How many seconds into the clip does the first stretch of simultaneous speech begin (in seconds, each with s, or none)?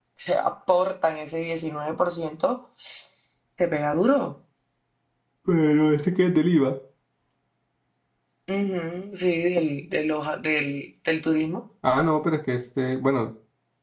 none